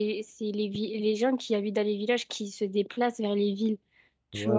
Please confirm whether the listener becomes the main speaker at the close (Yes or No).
Yes